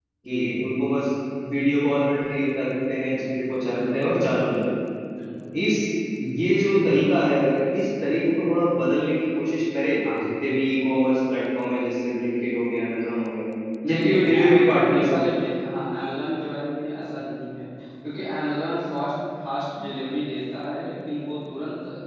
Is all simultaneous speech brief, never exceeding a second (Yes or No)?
No